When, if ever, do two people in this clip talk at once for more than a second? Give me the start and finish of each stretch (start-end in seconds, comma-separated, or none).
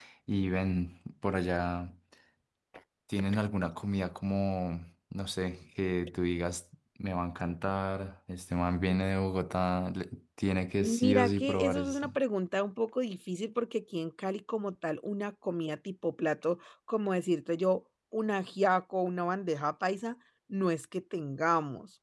10.8-12.1